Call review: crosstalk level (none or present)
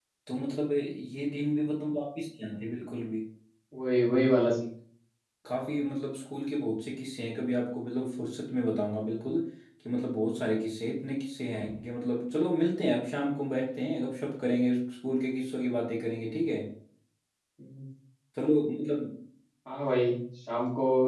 none